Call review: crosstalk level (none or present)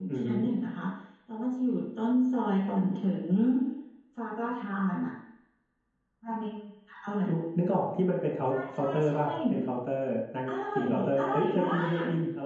present